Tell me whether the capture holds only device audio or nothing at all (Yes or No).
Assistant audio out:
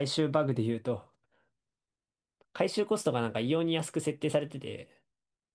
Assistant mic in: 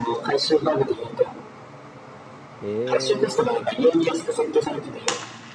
No